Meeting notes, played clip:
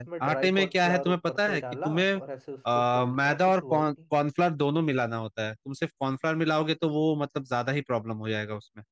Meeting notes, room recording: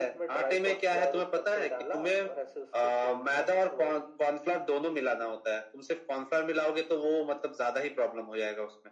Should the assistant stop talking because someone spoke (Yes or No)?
No